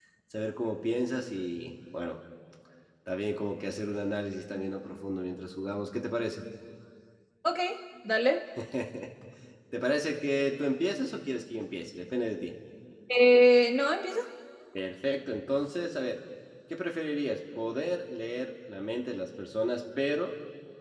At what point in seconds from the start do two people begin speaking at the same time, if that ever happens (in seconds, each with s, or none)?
none